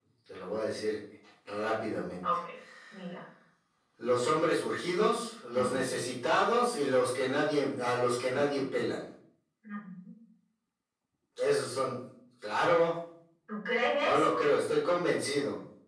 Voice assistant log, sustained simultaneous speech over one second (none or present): none